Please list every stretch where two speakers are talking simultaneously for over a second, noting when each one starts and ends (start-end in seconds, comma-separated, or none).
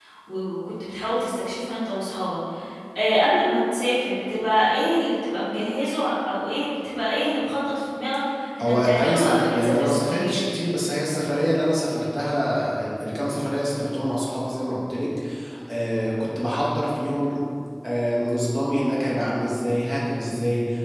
8.6-10.5